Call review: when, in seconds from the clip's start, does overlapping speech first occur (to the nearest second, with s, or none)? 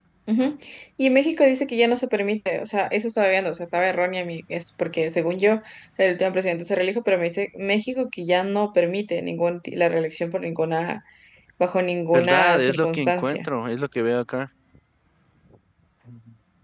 12 s